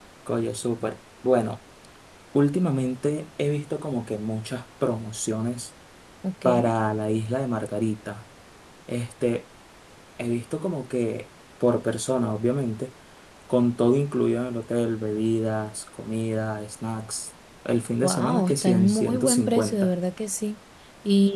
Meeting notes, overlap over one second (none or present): present